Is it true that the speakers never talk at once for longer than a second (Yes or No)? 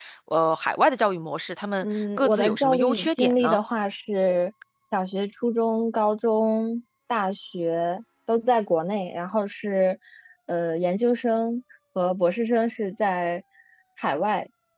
No